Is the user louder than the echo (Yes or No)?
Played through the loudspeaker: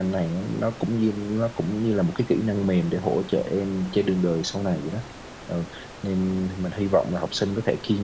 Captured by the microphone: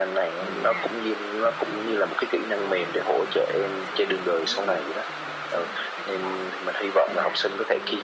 No